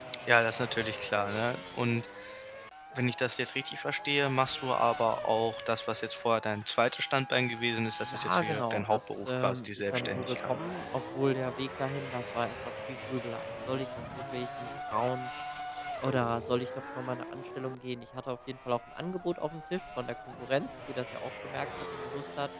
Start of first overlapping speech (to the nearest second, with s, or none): 8 s